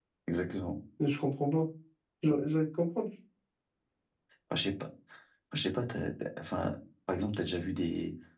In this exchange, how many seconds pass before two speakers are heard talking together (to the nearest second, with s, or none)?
none